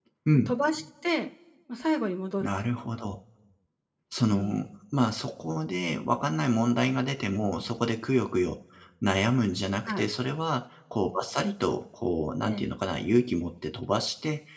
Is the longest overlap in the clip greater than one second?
No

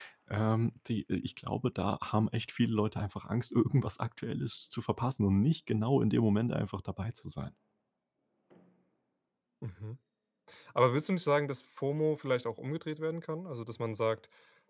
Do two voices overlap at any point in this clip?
No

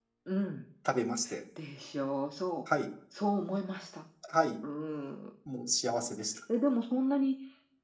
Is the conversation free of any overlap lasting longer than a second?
Yes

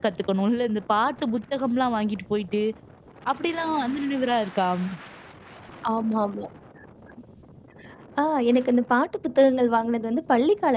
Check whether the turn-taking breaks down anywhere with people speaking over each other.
No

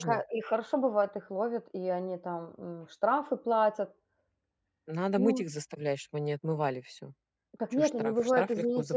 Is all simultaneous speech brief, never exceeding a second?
No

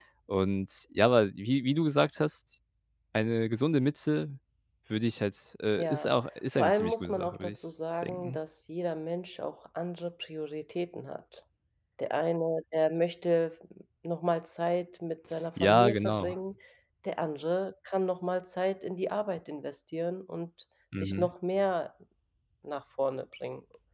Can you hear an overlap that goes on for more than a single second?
Yes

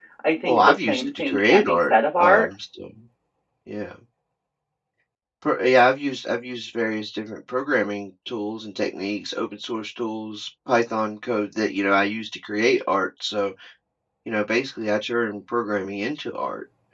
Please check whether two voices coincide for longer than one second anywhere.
Yes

